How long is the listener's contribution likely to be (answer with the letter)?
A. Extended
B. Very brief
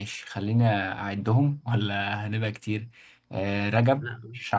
B